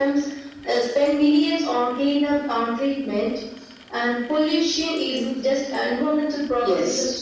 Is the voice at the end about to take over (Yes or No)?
No